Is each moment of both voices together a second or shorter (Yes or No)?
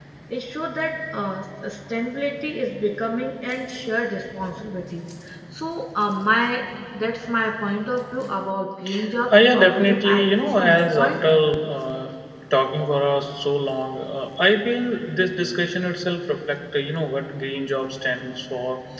No